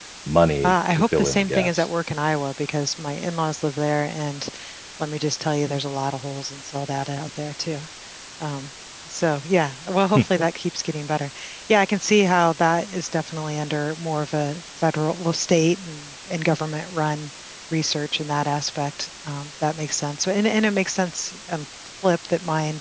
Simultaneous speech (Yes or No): Yes